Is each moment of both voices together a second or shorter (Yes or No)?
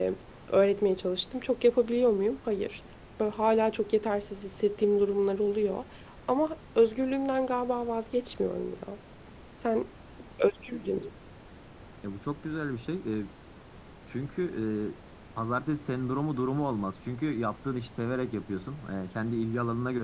Yes